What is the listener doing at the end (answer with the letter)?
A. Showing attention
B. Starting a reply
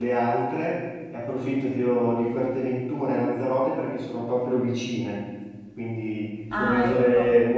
A